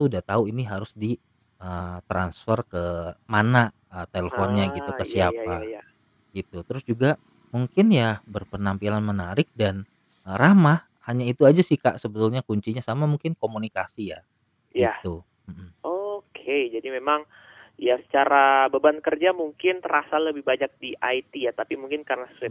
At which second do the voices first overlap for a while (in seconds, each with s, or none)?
4.3 s